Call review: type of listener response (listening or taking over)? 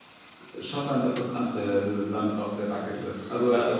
taking over